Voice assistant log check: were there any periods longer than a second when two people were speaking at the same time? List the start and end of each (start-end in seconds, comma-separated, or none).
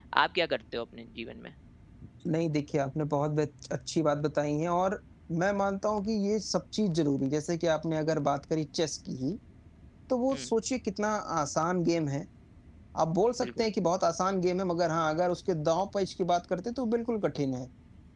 none